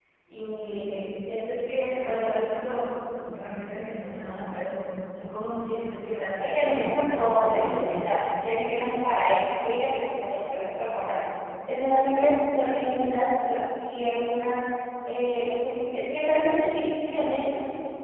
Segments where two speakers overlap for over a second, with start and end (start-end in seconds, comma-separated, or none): 6.4-8.2